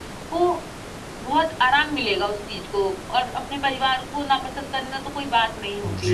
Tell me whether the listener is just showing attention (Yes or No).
No